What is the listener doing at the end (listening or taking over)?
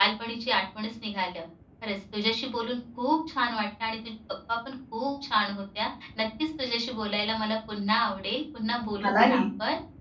listening